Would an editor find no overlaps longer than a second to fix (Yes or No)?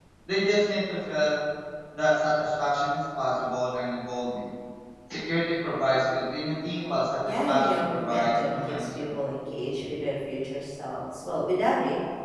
No